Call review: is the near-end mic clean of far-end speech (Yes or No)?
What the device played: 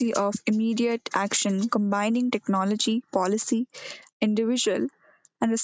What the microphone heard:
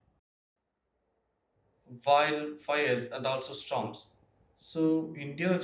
Yes